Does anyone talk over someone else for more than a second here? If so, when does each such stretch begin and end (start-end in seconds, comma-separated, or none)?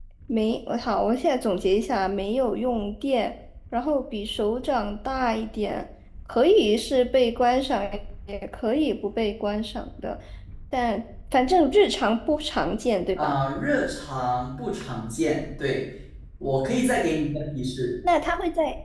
none